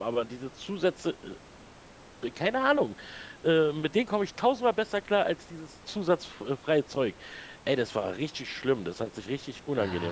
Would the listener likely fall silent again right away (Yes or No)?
No